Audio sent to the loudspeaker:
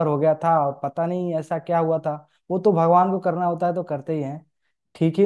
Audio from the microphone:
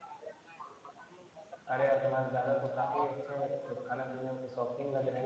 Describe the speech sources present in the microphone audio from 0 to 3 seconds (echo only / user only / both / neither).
both